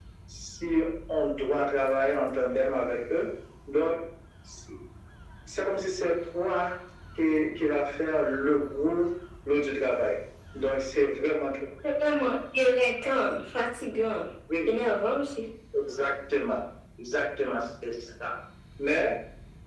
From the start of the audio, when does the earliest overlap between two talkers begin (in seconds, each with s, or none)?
none